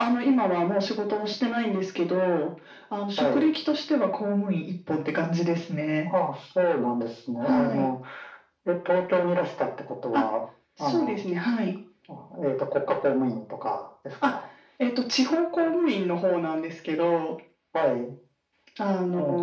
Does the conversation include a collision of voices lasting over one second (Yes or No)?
No